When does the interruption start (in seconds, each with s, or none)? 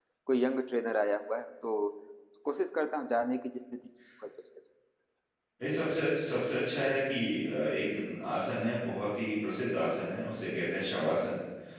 none